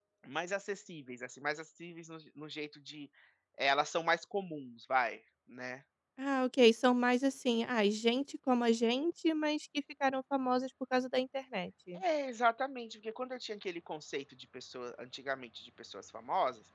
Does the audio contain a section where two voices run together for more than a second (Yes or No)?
No